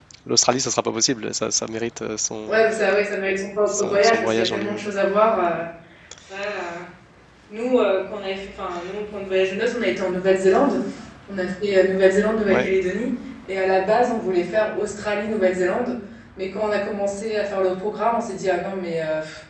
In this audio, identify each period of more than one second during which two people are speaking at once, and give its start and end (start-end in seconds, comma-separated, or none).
3.7-4.9